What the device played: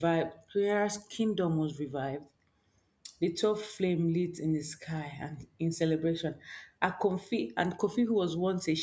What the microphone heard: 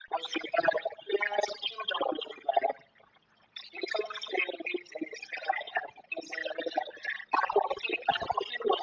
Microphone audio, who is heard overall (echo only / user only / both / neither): echo only